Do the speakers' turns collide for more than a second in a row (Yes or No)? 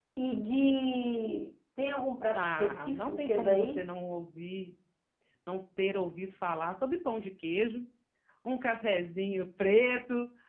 Yes